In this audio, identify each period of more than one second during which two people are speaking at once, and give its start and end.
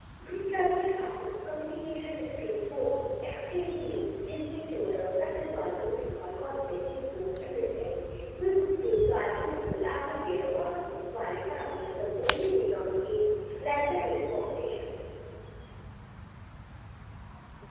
none

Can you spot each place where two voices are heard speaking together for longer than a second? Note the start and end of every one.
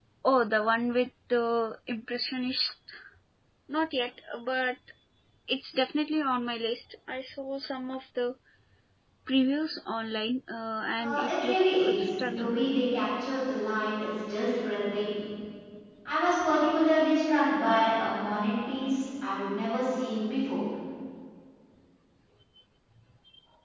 11.0-12.5

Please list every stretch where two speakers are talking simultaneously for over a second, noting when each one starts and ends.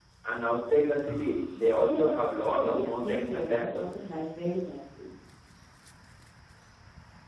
2.6-4.3

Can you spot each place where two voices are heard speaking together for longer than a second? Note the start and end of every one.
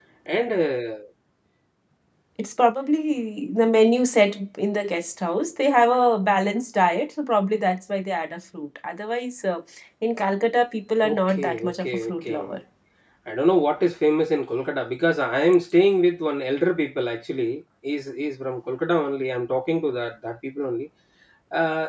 11.0-12.4

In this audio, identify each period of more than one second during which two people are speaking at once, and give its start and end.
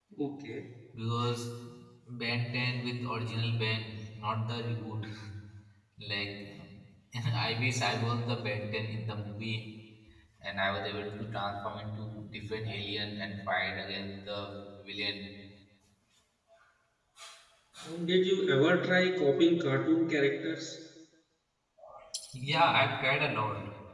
none

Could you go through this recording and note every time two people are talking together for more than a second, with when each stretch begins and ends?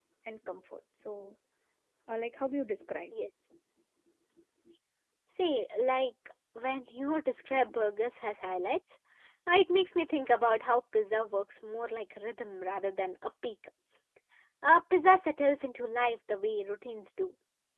none

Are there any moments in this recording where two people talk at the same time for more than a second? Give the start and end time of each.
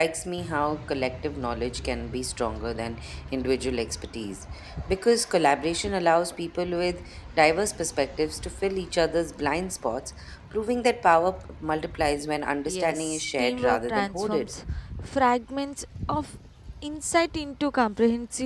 12.7-14.5

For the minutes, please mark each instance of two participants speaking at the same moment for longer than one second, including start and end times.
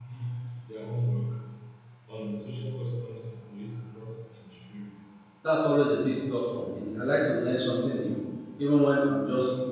none

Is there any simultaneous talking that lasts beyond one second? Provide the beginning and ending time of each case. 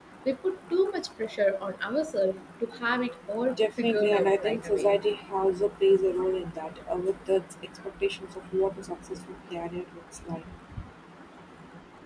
3.6-4.9

